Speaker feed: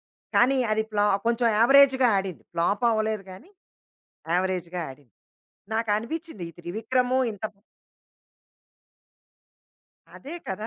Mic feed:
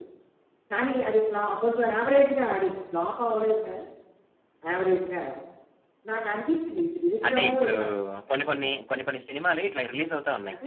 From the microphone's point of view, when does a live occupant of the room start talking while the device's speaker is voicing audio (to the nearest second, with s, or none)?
7 s